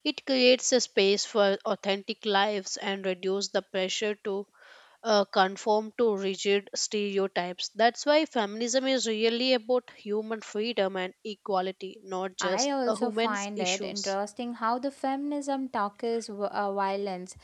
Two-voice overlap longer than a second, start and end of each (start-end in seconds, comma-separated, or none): 12.4-14.1